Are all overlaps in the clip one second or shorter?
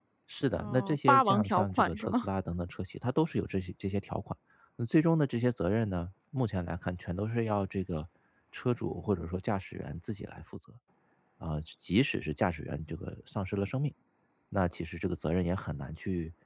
No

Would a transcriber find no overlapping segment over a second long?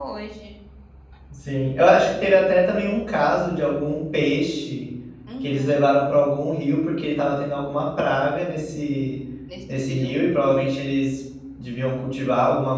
Yes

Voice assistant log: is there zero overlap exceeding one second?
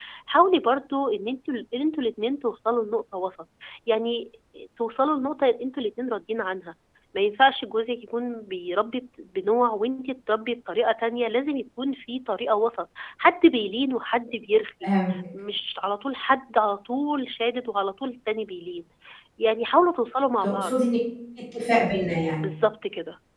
Yes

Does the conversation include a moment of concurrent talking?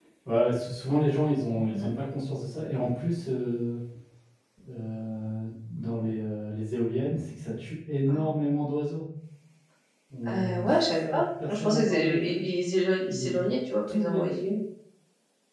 Yes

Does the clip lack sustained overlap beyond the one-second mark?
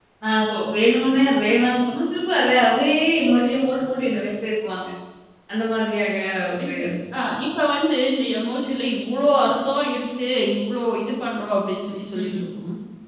Yes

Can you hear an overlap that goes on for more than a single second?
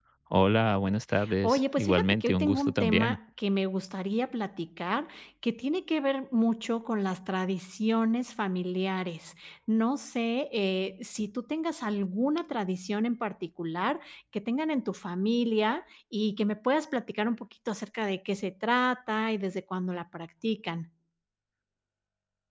Yes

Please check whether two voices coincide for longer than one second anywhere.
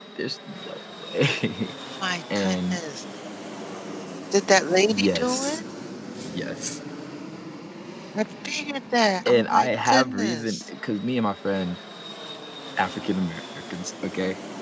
Yes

